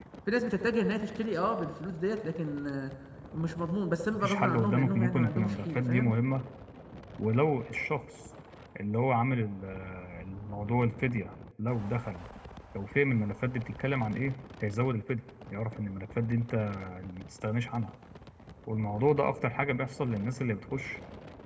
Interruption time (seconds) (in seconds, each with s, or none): 4.1 s